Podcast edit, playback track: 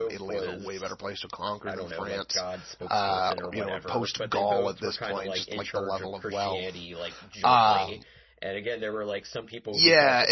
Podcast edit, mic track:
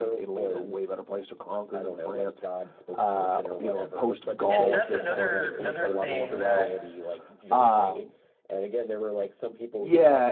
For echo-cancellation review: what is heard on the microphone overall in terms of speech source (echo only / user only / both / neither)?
both